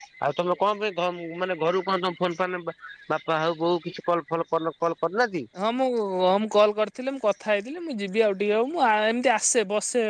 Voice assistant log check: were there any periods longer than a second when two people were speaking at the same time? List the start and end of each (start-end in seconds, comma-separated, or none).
none